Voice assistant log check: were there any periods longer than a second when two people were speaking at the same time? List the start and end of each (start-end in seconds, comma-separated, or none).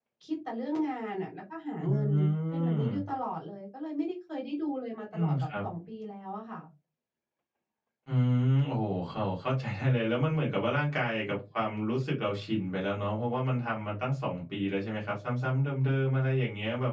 none